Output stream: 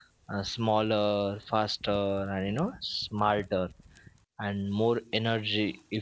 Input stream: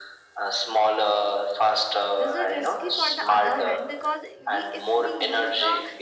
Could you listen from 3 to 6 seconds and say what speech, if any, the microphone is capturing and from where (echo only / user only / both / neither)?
both